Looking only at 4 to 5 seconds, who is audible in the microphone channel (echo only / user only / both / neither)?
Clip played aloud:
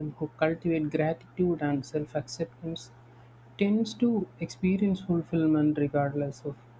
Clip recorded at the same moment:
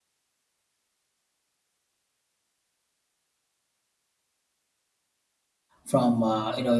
neither